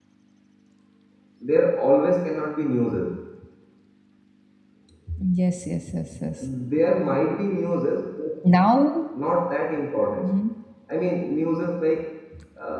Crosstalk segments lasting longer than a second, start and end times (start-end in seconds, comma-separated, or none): none